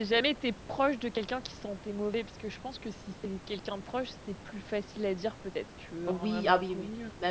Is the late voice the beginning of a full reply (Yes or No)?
Yes